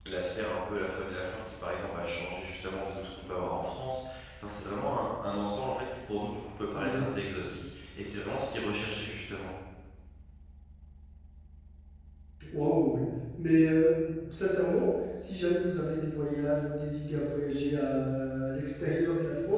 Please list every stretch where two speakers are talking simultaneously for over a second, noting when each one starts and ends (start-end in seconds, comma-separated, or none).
none